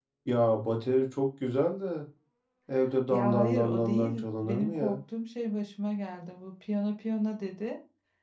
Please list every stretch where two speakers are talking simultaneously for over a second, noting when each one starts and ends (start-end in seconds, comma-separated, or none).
3.1-5.0